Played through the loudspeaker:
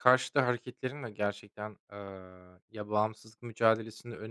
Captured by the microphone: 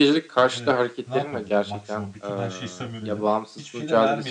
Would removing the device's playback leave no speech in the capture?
No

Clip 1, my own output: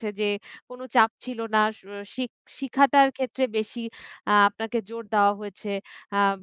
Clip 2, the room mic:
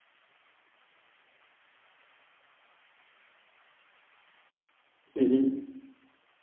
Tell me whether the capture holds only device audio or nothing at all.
No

